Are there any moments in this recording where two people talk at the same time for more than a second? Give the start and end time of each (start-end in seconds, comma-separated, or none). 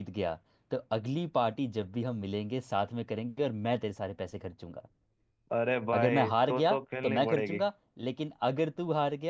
5.9-7.6